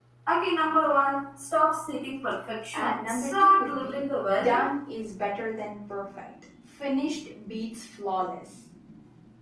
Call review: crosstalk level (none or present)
present